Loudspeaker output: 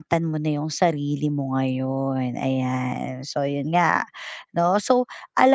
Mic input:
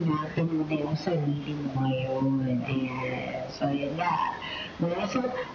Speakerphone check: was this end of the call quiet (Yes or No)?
Yes